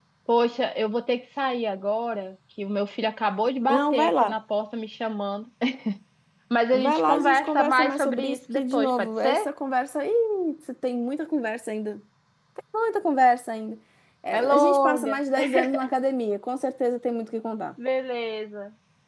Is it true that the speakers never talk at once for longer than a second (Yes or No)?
No